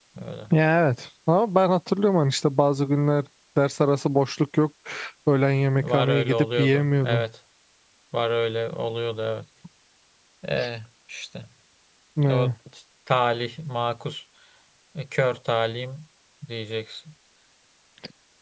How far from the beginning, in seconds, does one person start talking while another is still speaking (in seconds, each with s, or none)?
5.8 s